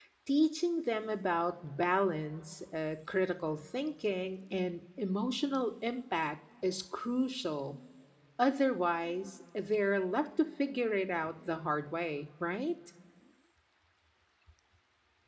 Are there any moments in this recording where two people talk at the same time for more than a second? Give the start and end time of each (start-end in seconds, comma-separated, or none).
none